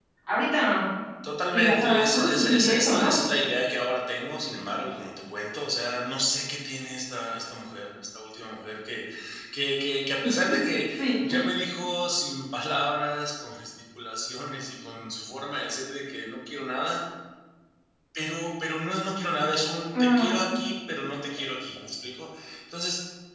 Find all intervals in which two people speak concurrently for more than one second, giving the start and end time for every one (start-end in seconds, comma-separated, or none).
1.5-3.1